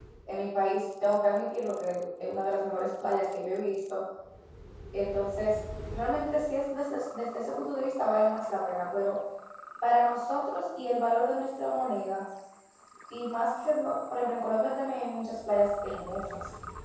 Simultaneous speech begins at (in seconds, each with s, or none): none